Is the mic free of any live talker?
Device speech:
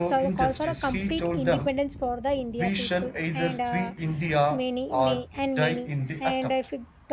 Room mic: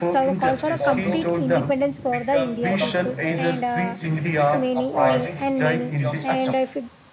No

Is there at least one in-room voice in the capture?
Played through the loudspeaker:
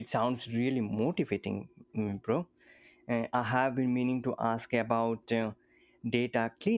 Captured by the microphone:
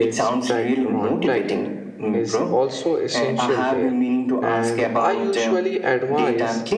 Yes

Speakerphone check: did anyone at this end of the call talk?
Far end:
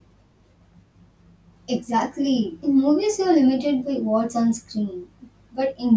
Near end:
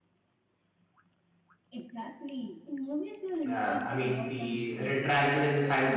Yes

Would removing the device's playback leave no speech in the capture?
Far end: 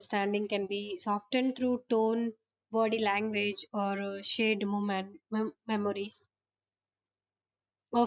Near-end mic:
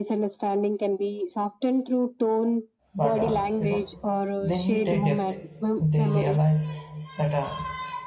No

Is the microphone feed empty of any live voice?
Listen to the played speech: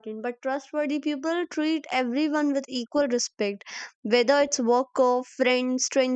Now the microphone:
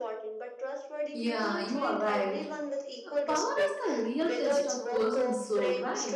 No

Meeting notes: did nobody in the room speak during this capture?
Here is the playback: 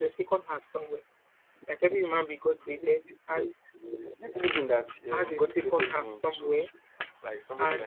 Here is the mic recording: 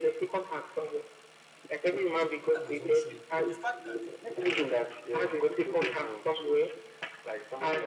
No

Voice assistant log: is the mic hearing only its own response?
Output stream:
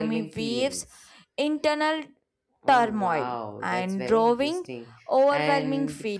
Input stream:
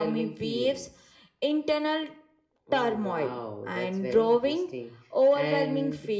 Yes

